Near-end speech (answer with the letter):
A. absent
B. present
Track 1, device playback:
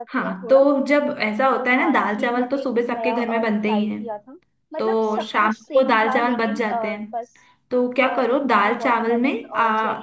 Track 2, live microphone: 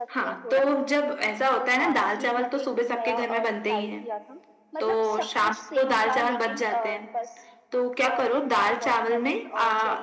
A